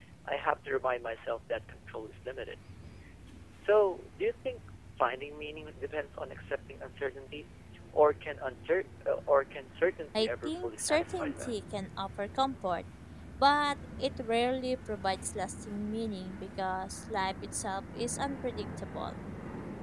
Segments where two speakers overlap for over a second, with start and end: 10.2-11.6

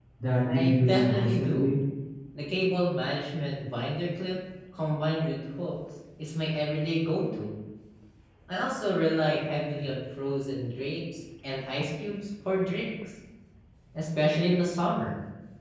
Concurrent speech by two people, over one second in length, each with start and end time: 0.5-1.8

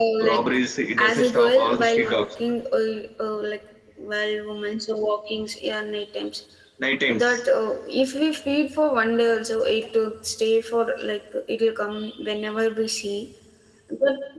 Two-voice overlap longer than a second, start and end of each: 1.0-2.2

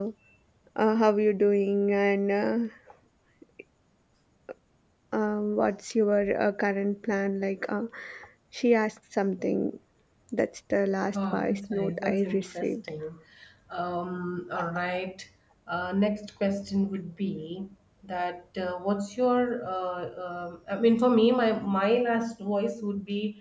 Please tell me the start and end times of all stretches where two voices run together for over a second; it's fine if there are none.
11.2-12.7

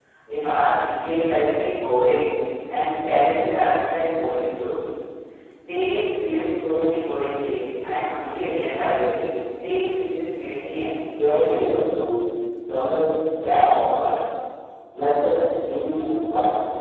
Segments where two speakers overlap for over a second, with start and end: none

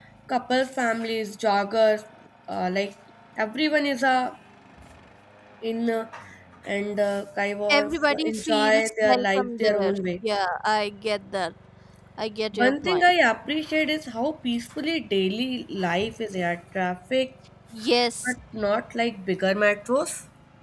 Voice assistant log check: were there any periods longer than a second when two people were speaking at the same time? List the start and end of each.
7.7-9.9

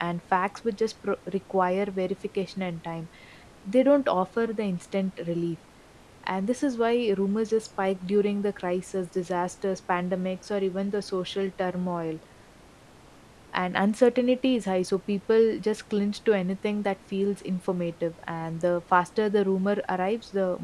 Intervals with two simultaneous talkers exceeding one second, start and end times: none

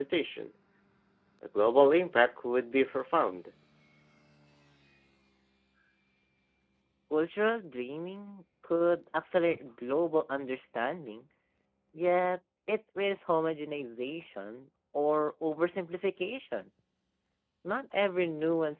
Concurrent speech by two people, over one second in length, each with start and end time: none

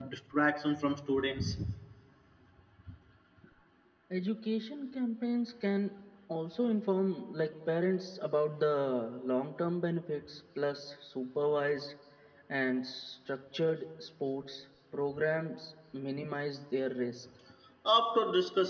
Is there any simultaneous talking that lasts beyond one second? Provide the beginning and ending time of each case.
none

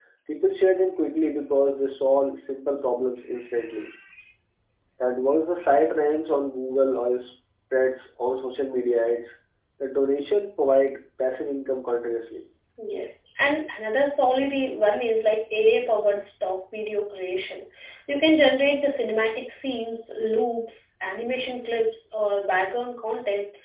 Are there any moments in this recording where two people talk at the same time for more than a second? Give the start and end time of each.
none

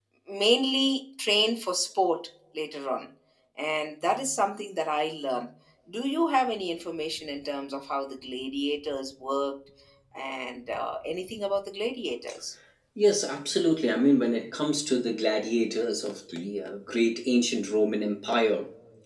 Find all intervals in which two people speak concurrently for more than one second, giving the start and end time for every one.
none

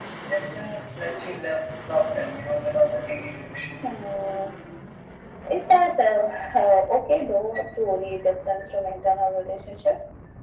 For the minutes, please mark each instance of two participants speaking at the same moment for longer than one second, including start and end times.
none

